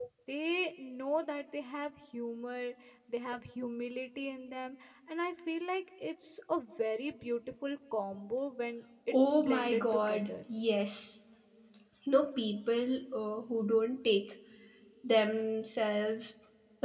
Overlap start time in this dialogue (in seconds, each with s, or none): 9.1 s